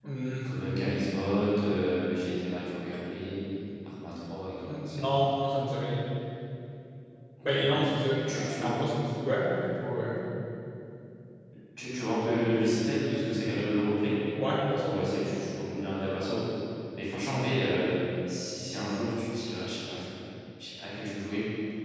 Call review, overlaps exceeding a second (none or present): none